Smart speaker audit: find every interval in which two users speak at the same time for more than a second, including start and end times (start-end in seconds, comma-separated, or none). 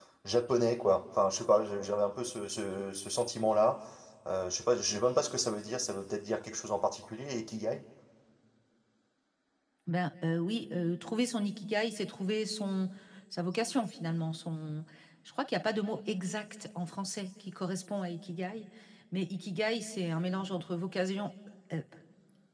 none